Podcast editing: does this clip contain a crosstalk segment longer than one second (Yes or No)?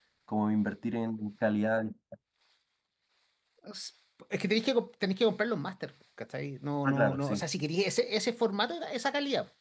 No